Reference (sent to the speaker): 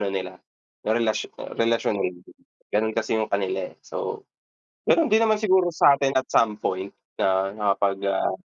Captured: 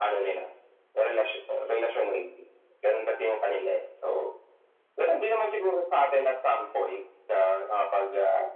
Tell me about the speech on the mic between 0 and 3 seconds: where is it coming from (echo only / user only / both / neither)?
echo only